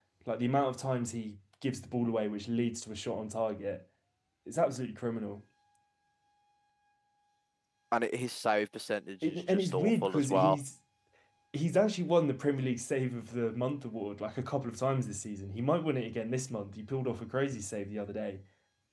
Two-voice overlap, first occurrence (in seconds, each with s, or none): 9.2 s